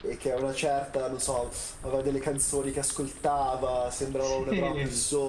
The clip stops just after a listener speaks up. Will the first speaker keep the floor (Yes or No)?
Yes